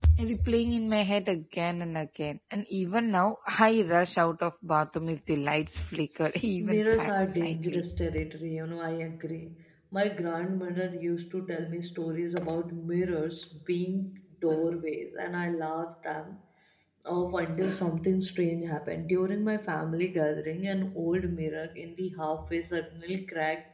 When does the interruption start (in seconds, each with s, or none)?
6.6 s